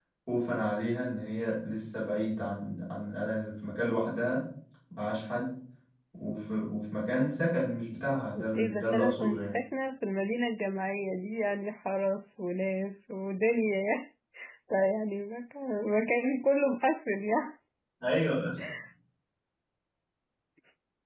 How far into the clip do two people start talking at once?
8.3 s

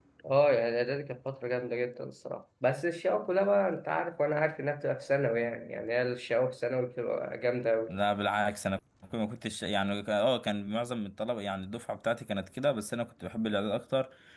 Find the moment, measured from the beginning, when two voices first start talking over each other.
none

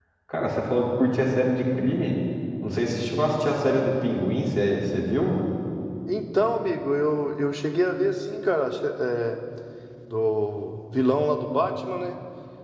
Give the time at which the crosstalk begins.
none

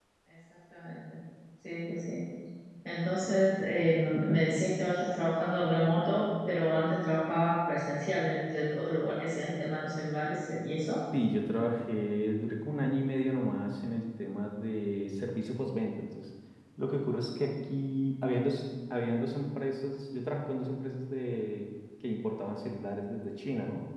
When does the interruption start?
none

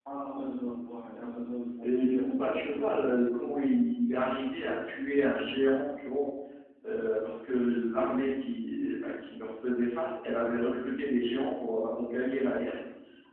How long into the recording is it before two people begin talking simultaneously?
1.8 s

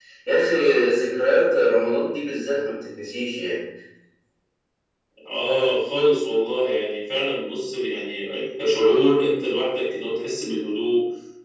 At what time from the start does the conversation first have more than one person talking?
none

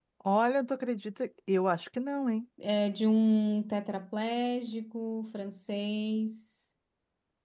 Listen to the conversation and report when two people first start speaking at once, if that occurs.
none

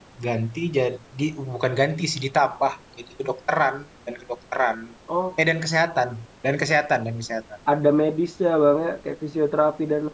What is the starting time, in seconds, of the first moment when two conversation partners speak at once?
none

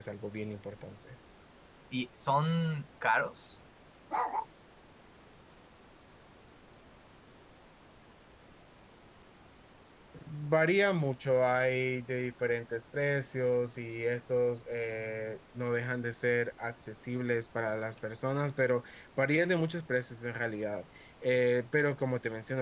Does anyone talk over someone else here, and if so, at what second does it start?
none

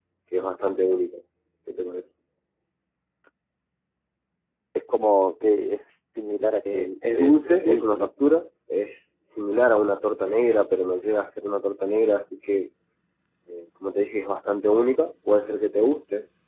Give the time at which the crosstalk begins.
6.7 s

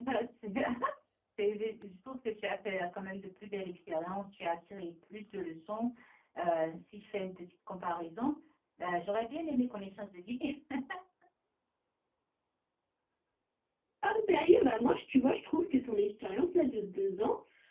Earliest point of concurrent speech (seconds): none

